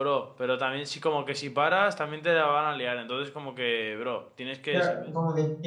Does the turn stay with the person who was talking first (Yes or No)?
No